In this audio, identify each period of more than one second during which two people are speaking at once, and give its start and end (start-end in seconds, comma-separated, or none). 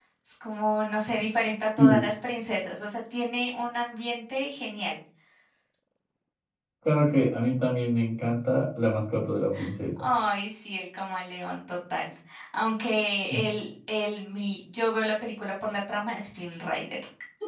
none